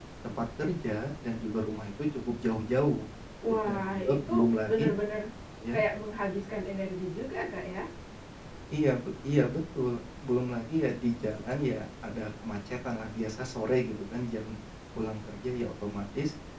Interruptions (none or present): present